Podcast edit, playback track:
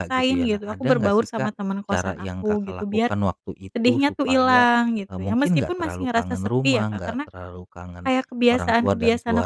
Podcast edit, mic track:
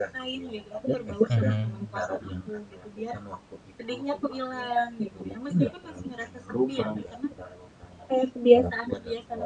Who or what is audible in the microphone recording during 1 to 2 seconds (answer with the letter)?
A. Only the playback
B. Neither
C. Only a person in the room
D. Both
D